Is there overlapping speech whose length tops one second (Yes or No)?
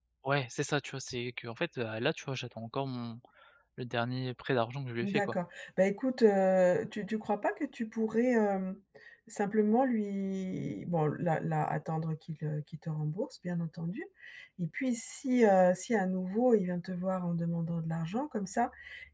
No